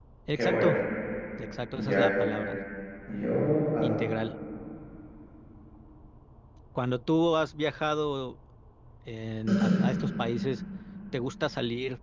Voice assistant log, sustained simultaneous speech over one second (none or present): none